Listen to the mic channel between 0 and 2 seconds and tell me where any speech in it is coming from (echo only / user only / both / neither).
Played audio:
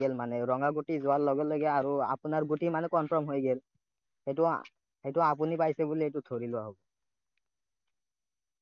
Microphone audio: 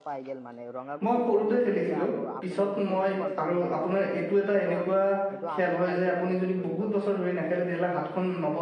both